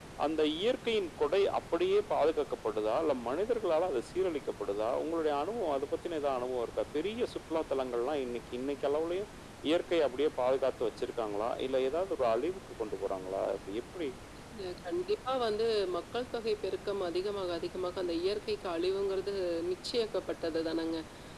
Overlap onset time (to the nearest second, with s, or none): none